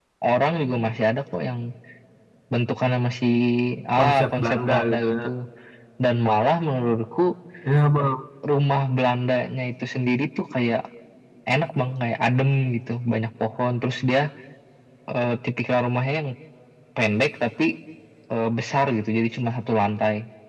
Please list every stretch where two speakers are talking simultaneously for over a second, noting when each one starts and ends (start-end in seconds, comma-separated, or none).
4.0-5.2